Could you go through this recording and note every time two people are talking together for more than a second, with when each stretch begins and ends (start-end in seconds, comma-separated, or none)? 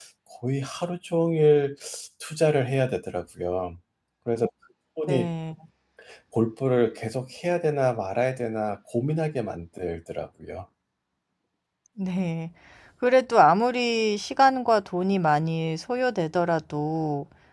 none